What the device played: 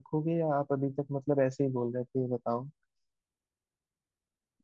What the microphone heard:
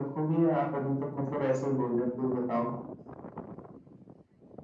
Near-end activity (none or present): none